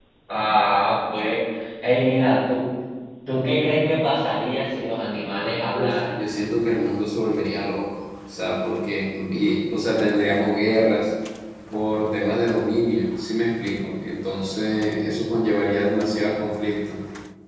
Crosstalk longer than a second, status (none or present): none